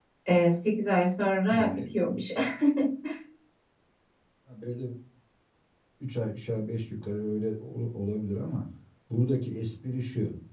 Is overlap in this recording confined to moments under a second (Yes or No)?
Yes